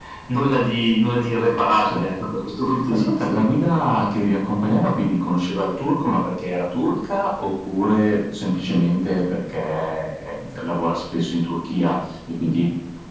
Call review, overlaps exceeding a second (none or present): none